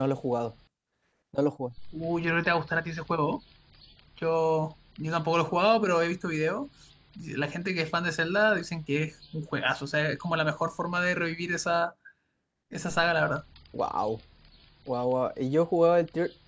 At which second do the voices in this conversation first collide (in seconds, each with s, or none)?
none